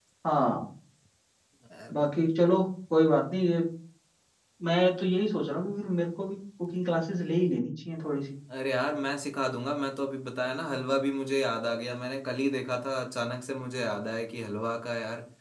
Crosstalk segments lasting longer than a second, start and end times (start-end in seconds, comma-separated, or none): none